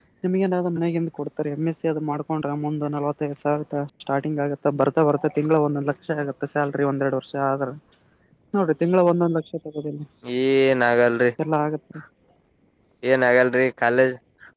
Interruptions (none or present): none